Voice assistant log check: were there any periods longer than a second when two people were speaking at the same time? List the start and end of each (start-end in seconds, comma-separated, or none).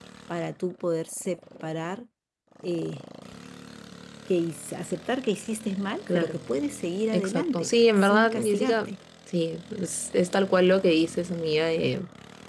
7.1-8.9